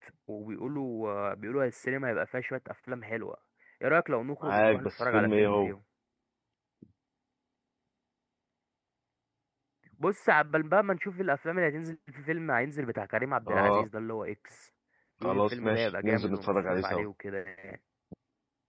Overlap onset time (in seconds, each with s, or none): 4.4 s